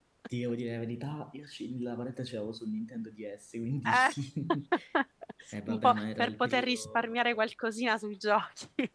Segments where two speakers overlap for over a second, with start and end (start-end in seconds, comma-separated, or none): 5.7-7.1